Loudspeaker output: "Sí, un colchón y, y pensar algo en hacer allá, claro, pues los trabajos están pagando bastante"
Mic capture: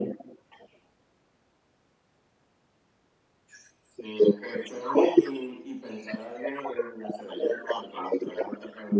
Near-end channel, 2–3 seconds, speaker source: neither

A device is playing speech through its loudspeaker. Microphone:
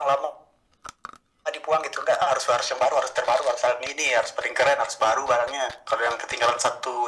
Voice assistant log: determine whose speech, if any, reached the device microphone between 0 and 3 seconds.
echo only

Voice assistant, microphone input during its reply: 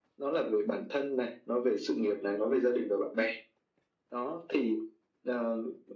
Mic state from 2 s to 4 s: echo only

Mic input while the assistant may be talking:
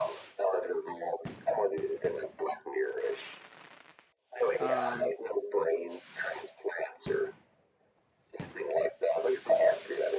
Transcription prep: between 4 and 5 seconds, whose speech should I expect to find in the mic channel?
both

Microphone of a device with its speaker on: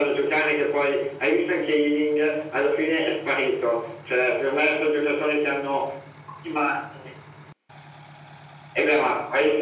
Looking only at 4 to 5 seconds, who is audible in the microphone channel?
echo only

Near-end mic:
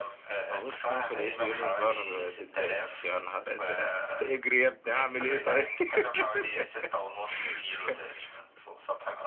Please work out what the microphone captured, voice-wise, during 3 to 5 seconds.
both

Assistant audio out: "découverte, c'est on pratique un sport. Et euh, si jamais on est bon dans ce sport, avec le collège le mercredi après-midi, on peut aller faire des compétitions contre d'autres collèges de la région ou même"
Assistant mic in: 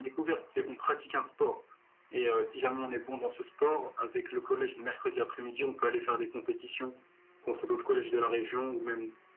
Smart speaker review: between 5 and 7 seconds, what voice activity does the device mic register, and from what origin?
echo only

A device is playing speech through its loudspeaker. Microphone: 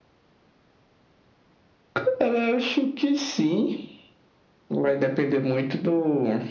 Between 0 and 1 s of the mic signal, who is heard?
neither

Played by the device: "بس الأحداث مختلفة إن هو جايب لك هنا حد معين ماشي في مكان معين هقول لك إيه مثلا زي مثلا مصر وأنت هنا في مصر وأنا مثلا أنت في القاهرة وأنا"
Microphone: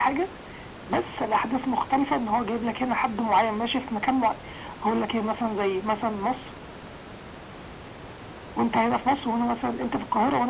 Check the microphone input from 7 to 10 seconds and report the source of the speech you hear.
echo only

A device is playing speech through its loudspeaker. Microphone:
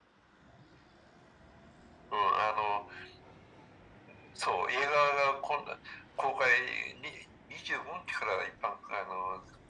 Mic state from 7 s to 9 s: echo only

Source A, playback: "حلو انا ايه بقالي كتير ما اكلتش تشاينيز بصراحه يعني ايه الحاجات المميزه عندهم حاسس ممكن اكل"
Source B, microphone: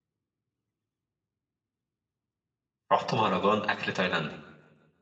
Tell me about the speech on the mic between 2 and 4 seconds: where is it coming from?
user only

